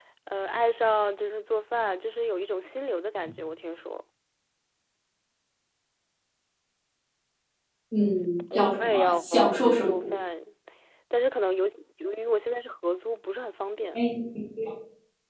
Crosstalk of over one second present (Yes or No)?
Yes